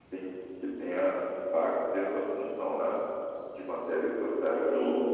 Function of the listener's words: listening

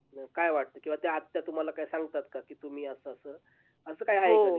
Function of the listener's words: taking over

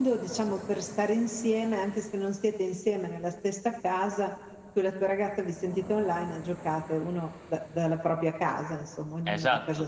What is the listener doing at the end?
taking over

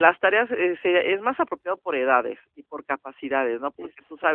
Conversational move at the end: listening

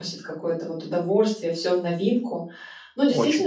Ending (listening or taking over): listening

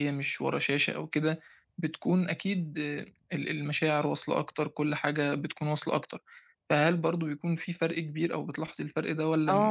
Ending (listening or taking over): taking over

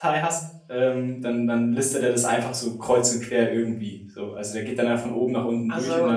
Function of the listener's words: listening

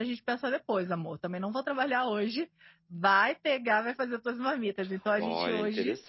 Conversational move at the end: taking over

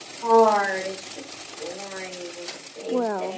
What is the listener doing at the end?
taking over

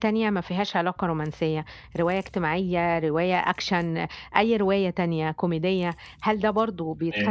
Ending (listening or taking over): listening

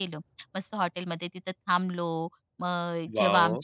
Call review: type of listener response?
listening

